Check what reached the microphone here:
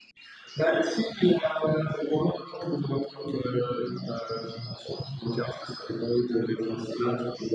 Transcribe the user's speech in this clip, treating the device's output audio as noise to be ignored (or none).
none